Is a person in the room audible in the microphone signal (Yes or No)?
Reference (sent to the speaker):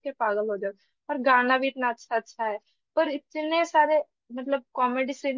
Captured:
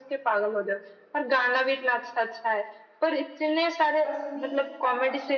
Yes